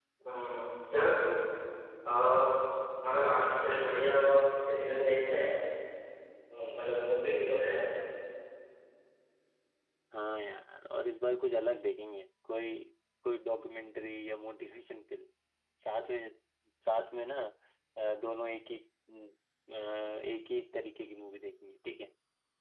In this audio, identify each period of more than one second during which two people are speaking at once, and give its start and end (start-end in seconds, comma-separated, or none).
none